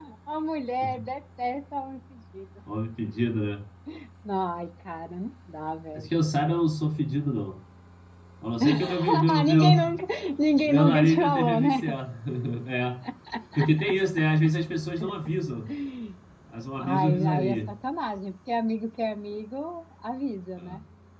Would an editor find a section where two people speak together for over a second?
Yes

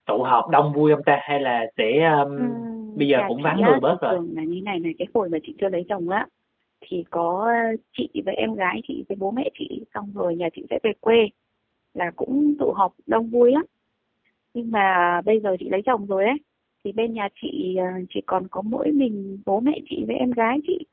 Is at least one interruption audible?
Yes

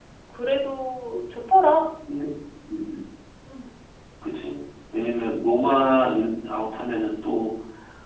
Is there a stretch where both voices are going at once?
No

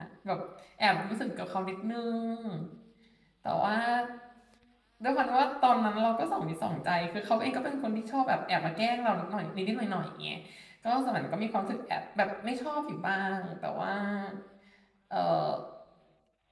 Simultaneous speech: No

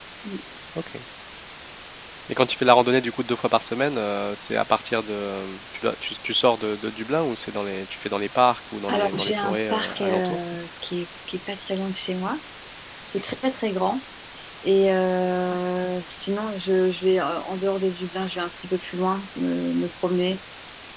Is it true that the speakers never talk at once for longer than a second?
No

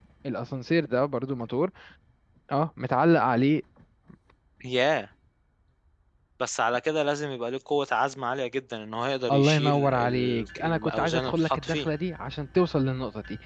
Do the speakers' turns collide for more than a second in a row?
Yes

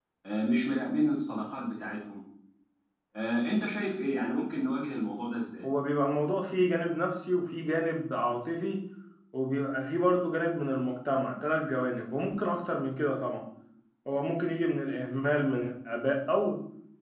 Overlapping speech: No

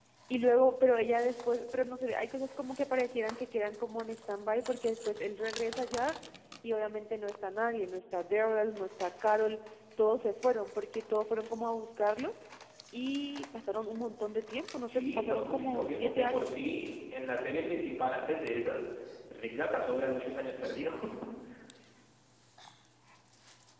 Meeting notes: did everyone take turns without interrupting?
No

